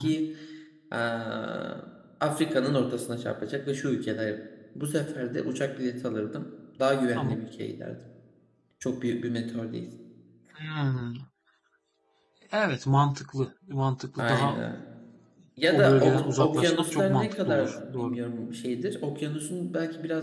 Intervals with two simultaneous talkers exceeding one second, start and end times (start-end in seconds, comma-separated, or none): 15.7-18.2